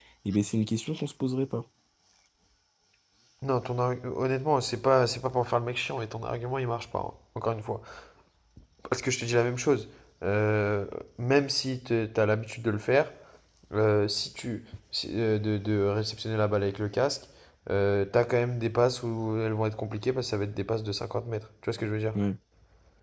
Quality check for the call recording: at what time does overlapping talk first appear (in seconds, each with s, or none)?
none